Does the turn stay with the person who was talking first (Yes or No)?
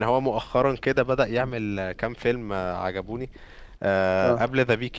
Yes